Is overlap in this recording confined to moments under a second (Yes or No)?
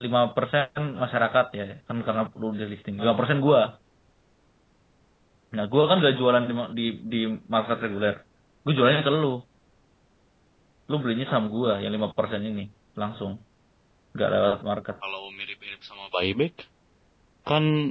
Yes